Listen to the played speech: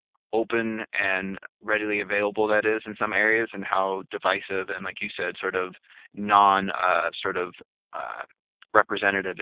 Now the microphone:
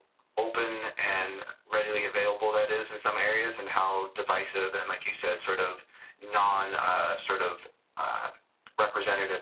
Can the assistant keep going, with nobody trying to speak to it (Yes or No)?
Yes